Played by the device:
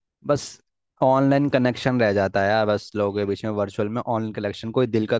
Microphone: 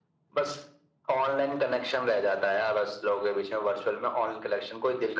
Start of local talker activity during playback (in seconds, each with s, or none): none